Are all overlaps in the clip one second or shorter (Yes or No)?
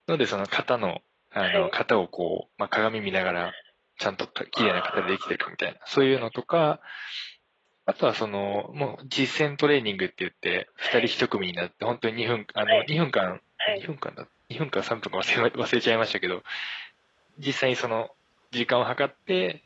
Yes